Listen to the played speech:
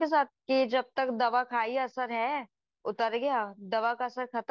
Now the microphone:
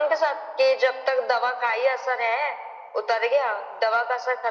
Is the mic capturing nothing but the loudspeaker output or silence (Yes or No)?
Yes